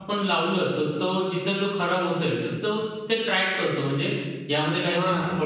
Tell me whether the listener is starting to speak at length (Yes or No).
Yes